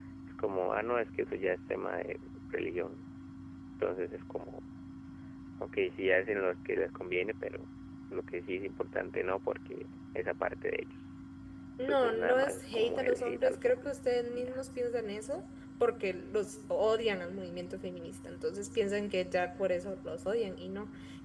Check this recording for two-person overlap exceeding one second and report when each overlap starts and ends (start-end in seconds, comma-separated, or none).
11.8-13.8